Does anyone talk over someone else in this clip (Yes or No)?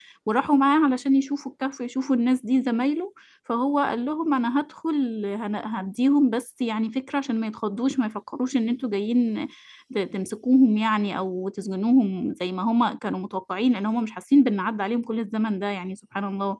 No